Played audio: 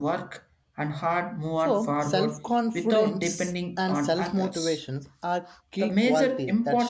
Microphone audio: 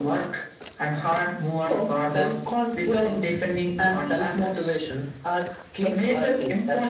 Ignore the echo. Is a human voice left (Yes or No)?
No